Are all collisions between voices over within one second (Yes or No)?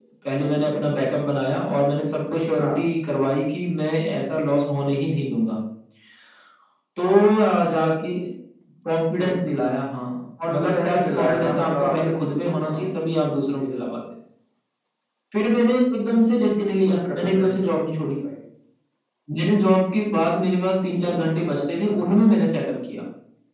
No